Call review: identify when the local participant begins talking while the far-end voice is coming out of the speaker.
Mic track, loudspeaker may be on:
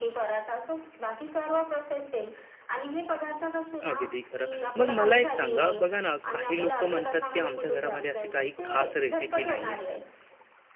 3.9 s

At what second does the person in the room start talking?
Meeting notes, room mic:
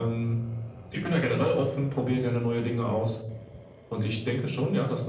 none

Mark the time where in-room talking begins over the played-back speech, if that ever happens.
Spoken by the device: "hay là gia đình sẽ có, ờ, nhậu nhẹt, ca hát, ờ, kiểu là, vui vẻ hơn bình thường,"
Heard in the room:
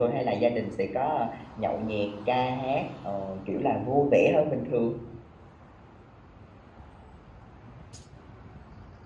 none

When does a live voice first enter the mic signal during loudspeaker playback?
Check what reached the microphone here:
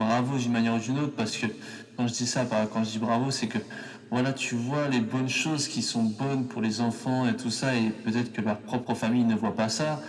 none

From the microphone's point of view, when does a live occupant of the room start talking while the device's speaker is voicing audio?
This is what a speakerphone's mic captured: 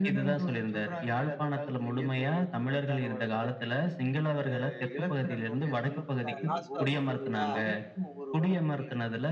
6.1 s

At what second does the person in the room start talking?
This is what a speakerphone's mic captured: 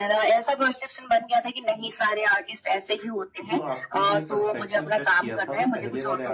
3.5 s

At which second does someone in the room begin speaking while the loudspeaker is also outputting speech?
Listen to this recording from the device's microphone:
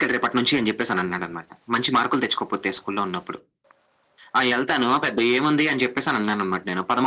none

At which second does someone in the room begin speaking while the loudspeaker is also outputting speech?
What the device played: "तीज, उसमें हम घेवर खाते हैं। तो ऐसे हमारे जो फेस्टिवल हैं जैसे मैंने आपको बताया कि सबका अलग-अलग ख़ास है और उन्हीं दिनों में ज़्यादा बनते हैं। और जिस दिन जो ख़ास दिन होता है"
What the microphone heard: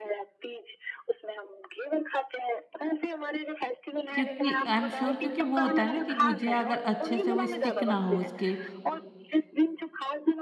4.1 s

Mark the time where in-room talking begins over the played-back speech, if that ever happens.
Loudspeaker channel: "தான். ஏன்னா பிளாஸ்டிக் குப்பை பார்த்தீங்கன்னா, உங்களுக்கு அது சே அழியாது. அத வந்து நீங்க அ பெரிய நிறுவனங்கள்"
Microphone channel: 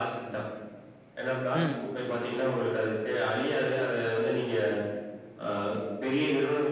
1.5 s

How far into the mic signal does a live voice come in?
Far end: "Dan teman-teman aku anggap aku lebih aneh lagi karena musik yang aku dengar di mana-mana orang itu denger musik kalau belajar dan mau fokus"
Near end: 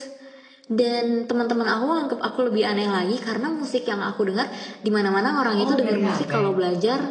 5.5 s

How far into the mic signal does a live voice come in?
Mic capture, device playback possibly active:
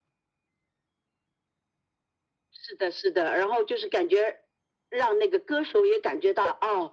none

